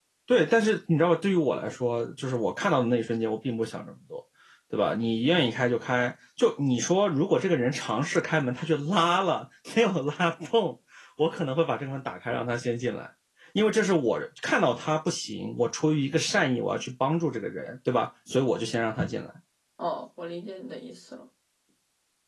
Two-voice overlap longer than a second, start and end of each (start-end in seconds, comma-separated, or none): none